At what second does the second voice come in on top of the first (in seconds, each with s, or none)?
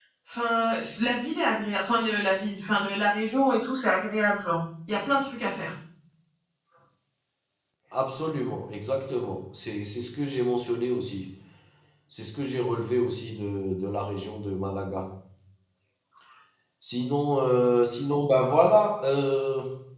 none